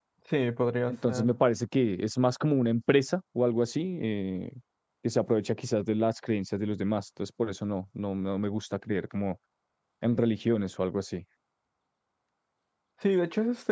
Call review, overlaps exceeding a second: none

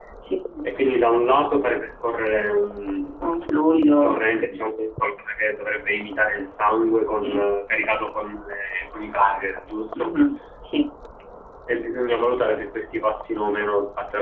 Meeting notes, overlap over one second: none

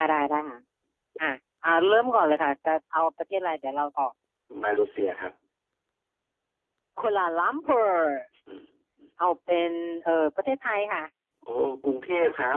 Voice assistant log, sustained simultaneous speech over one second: none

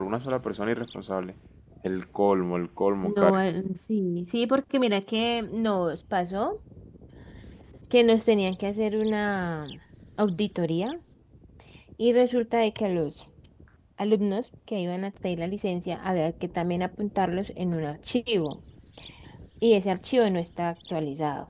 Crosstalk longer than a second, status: none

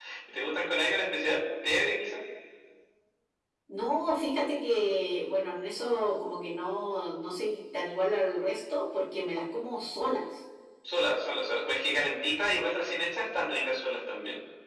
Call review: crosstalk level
none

